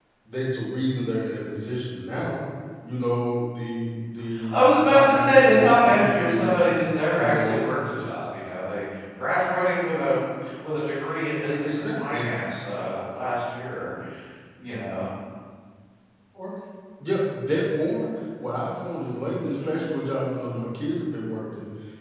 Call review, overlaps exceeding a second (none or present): present